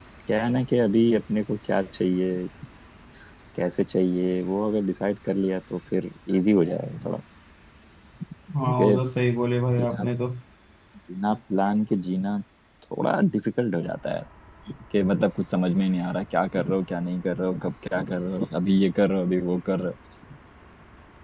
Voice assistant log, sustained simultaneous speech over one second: none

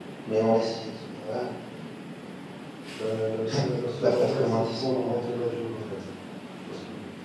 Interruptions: present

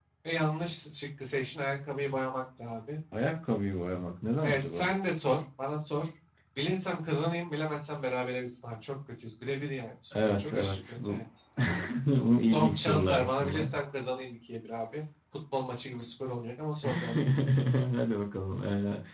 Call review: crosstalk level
present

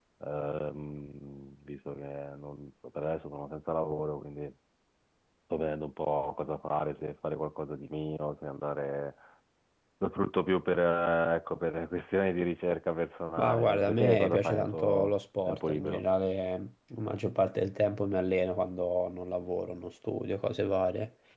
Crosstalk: present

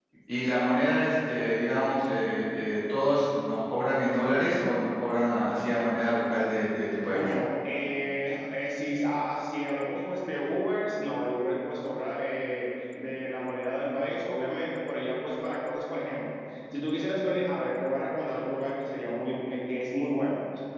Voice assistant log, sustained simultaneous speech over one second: none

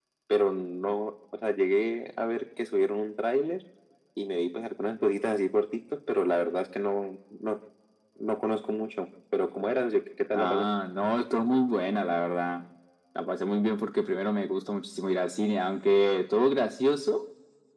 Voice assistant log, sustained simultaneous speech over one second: none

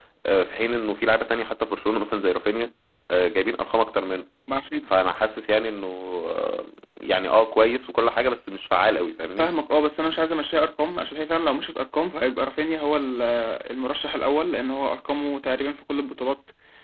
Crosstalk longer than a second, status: none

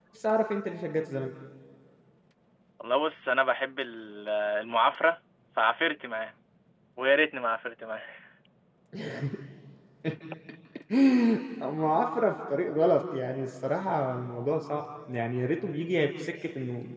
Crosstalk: none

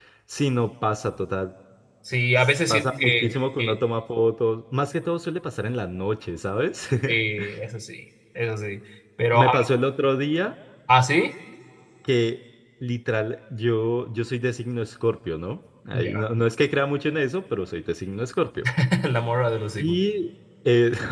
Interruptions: present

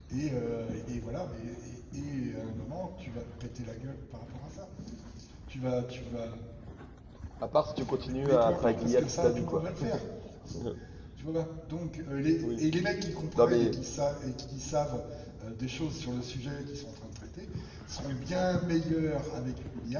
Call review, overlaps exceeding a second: present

